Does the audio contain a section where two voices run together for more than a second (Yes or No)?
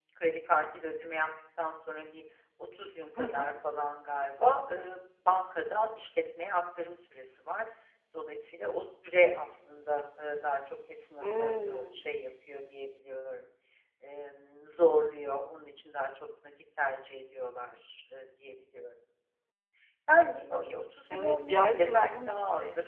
Yes